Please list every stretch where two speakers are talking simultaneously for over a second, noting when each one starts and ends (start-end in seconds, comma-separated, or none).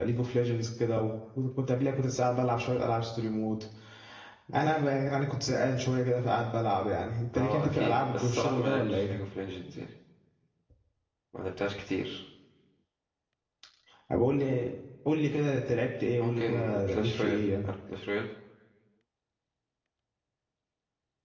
7.3-9.2, 16.2-17.7